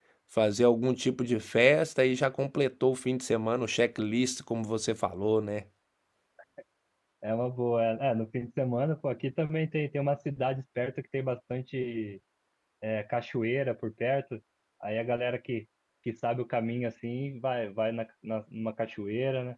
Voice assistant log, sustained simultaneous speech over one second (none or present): none